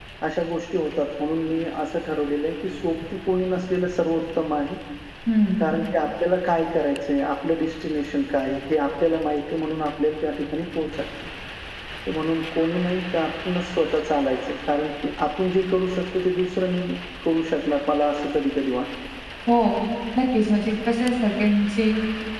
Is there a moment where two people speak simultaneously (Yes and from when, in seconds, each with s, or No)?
No